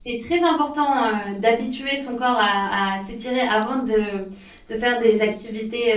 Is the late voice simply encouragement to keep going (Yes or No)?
Yes